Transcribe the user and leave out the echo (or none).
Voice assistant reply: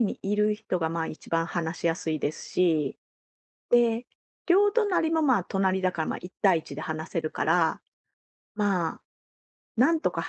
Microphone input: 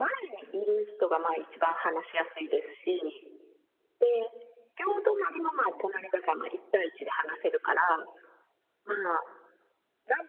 none